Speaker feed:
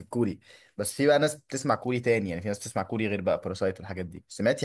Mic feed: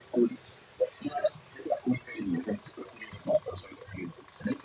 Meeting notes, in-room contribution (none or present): none